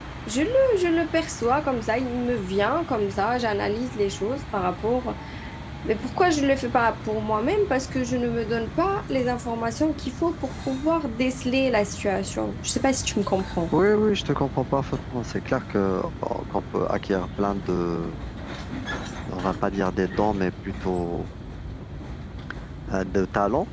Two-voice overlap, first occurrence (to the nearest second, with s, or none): none